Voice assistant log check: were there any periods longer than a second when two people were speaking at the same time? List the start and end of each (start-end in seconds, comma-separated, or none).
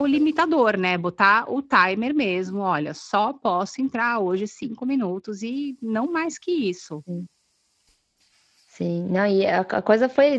none